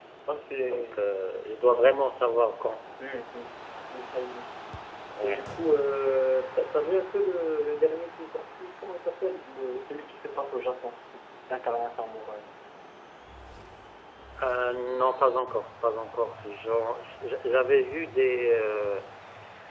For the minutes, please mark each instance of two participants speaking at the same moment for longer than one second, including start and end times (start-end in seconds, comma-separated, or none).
none